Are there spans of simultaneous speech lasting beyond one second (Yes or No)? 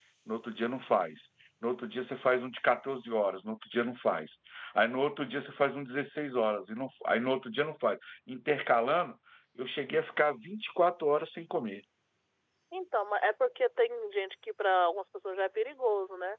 No